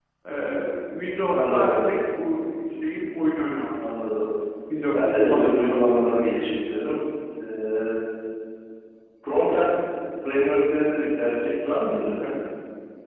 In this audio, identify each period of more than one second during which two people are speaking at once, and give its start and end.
4.9-6.3

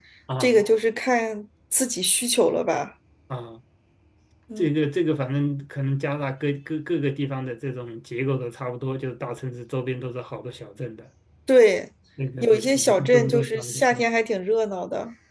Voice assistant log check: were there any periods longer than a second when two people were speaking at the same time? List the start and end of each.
12.4-14.1

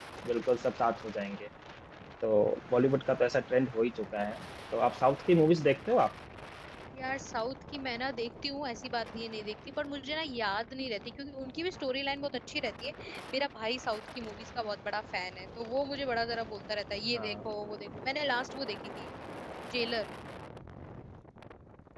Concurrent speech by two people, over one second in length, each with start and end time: none

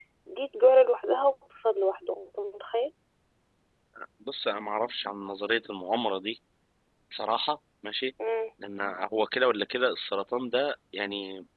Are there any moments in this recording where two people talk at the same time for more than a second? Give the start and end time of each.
none

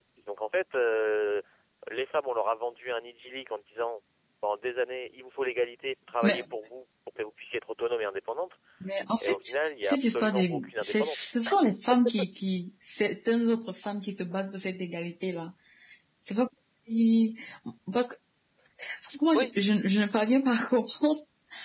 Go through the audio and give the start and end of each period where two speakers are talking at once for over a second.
9.8-11.3

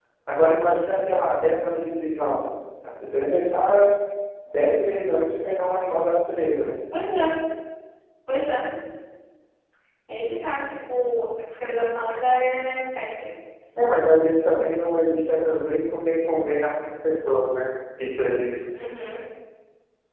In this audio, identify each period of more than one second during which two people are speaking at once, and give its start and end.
none

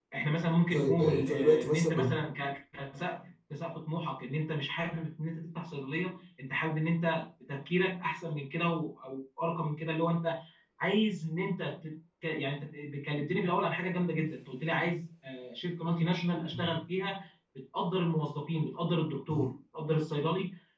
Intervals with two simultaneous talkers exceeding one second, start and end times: 0.7-2.2

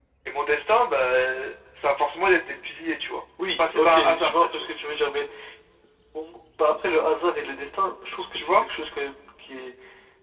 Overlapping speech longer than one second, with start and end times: 3.4-4.7

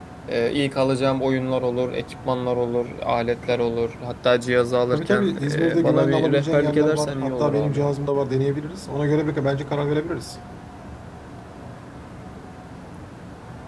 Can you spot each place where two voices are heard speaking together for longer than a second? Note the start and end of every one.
4.9-8.0

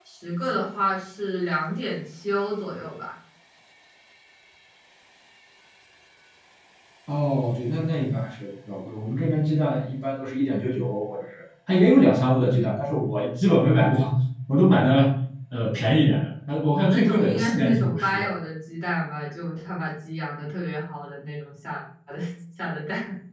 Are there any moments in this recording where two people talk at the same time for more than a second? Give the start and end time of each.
16.6-18.3

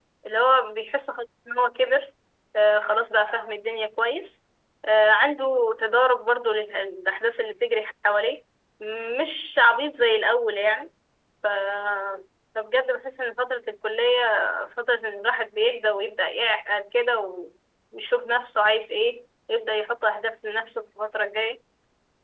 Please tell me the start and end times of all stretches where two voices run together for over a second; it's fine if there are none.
none

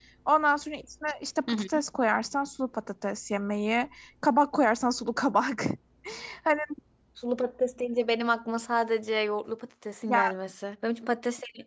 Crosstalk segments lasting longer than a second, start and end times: none

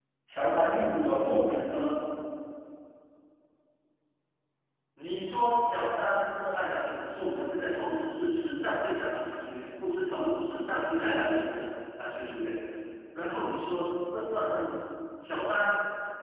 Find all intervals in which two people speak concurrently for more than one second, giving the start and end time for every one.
none

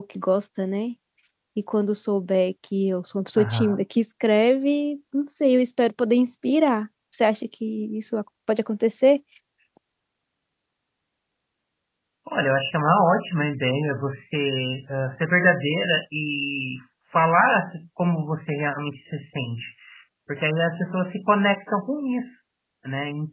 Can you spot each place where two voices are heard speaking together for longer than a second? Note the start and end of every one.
none

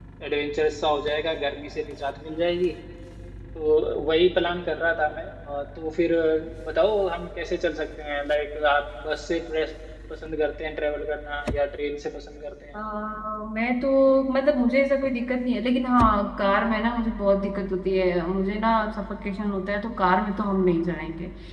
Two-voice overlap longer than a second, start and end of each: none

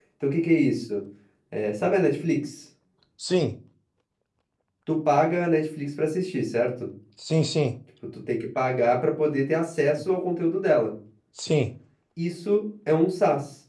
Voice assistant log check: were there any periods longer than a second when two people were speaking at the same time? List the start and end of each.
none

